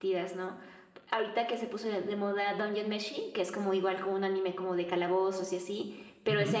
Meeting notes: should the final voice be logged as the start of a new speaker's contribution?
No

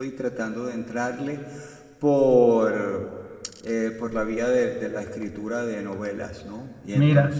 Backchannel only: Yes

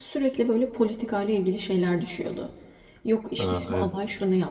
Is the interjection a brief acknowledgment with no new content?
Yes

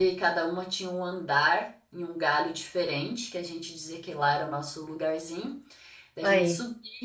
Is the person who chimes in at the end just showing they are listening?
Yes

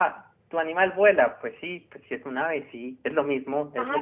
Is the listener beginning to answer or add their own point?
Yes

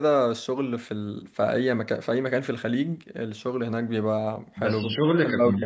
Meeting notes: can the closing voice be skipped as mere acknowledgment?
No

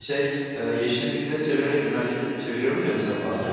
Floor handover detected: Yes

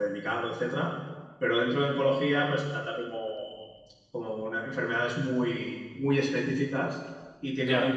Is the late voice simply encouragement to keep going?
Yes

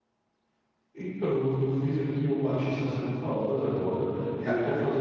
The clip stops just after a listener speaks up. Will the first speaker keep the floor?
Yes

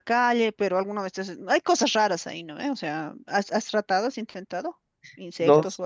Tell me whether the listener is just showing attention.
No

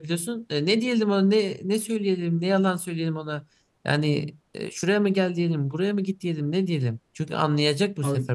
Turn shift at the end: No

